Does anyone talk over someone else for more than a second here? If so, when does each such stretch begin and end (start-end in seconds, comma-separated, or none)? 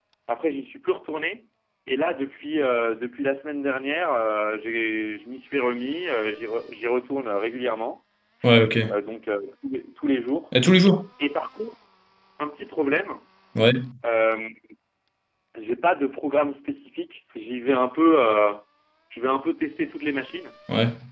none